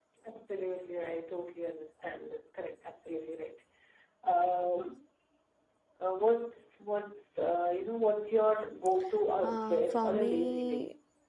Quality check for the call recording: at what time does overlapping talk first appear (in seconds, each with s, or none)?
9.4 s